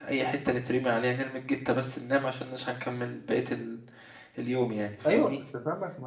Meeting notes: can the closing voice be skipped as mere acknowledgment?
No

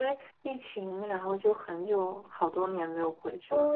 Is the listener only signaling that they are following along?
No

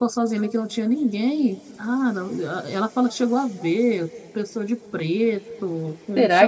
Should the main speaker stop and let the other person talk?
Yes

